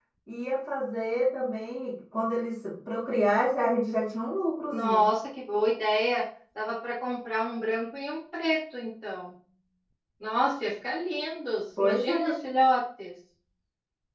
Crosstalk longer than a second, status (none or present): none